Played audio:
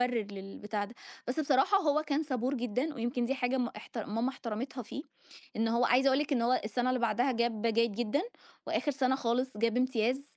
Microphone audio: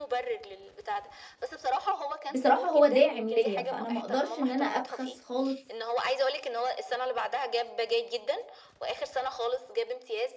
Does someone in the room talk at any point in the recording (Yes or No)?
Yes